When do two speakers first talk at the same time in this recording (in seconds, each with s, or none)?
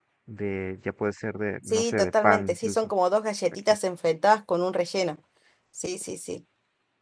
1.6 s